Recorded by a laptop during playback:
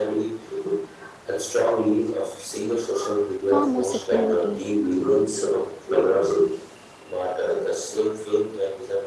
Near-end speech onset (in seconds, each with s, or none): 3.4 s